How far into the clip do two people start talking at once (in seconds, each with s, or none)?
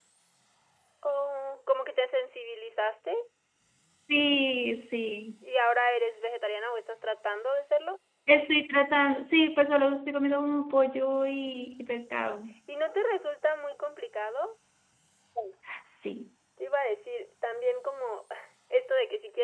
none